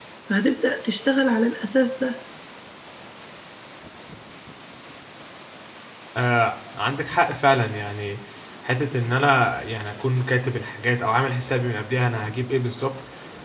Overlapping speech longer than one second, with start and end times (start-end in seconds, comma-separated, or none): none